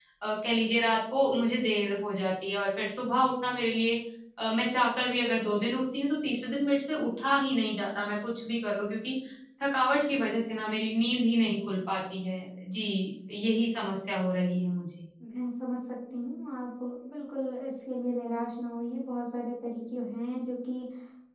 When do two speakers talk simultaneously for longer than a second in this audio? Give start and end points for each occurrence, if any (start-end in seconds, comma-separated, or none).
none